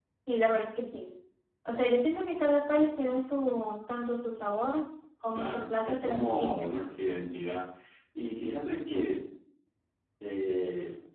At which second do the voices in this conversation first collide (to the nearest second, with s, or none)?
5 s